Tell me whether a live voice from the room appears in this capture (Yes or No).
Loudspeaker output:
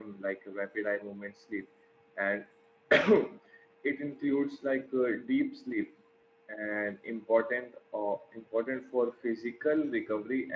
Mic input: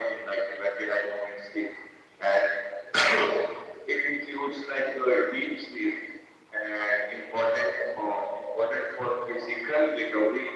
No